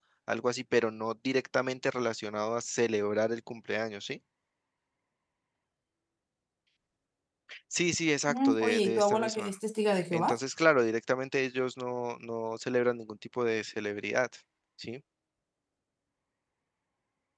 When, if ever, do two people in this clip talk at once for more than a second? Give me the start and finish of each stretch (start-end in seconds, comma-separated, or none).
8.3-9.5